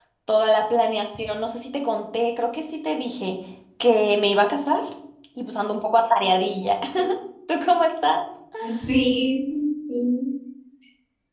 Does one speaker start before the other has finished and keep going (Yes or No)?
No